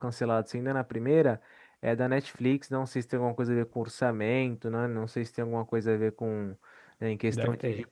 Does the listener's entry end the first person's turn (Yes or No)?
No